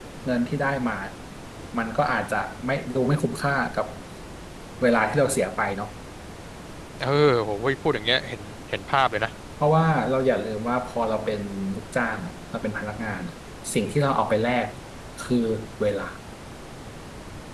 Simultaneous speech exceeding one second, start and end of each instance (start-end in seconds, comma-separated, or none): none